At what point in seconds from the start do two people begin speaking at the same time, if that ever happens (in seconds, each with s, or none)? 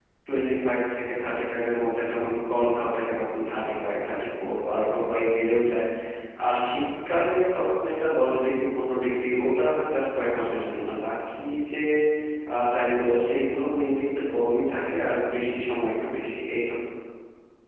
none